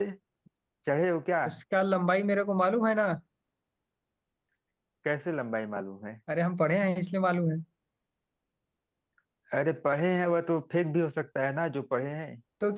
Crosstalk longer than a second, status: none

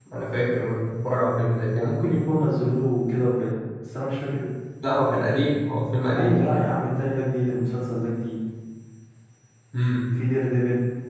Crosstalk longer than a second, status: none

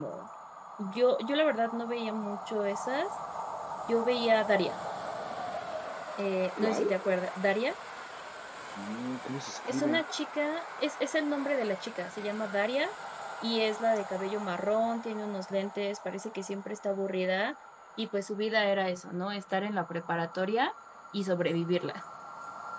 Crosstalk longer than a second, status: none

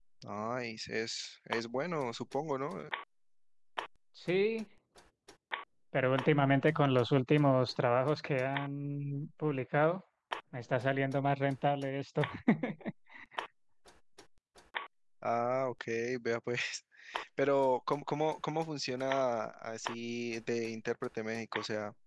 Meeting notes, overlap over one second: none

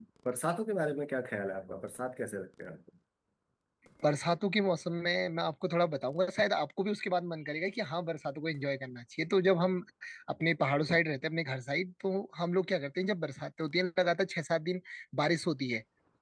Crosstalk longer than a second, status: none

